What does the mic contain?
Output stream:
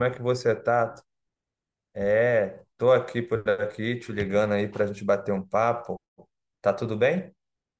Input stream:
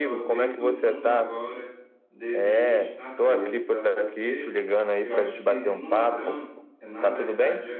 both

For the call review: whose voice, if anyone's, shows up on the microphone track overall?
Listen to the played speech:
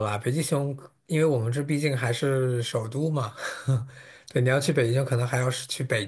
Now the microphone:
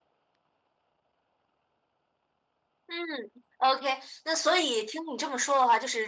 user only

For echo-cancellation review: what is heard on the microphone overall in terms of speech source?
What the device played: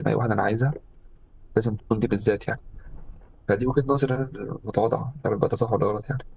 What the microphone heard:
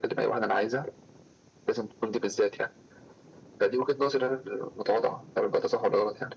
echo only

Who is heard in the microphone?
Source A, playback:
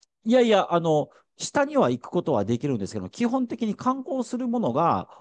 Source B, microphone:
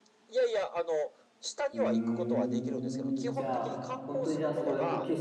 both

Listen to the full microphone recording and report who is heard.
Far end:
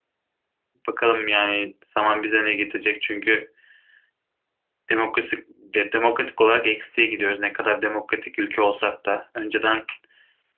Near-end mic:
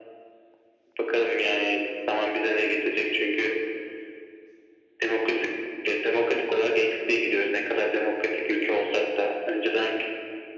echo only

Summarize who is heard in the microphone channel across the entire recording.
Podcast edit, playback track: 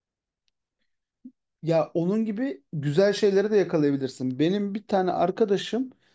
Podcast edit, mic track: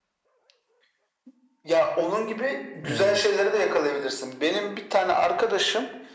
both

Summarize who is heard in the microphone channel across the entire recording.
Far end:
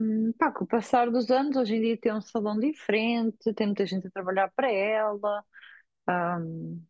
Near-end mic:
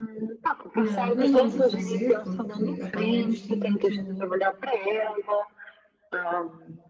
both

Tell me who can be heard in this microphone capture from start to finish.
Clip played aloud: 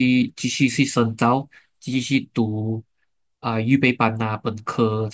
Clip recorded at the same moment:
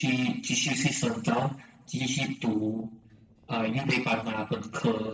echo only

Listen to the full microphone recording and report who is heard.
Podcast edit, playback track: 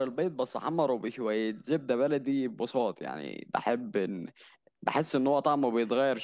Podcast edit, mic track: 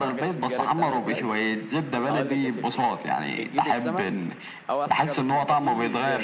both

